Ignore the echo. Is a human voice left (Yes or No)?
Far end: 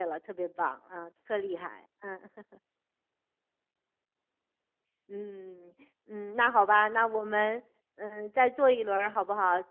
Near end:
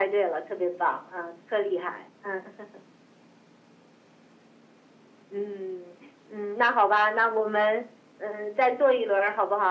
No